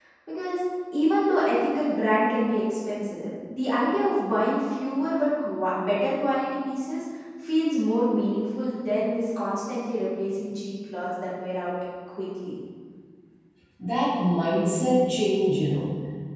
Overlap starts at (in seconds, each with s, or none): none